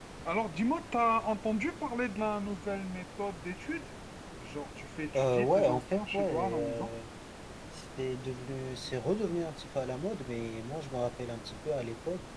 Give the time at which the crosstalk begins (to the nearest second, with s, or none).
5 s